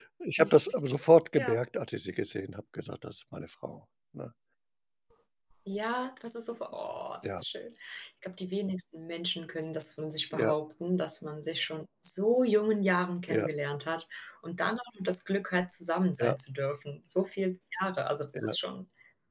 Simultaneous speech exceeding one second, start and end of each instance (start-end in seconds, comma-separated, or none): none